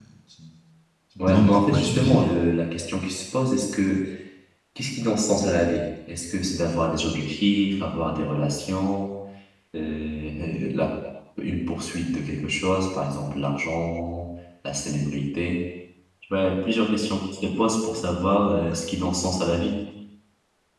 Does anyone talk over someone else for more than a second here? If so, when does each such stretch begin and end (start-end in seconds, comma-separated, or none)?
1.2-2.5